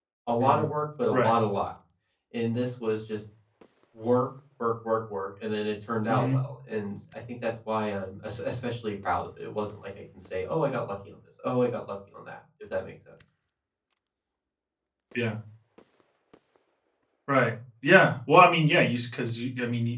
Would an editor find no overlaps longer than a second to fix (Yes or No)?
Yes